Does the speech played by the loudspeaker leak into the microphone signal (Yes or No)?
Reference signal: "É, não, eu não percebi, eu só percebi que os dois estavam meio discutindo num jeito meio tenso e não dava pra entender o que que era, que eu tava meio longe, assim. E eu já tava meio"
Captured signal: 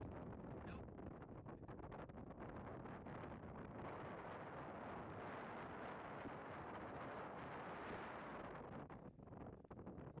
No